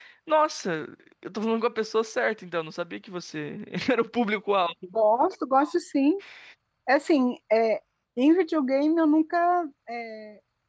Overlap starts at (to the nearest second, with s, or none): none